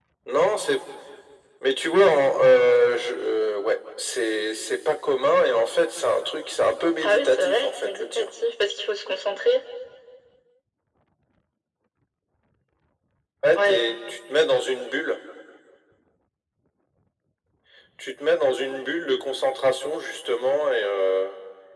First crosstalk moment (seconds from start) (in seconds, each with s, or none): 7.0 s